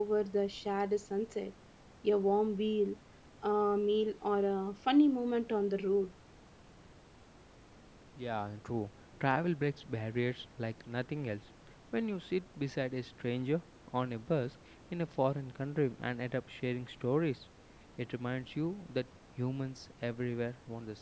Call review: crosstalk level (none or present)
none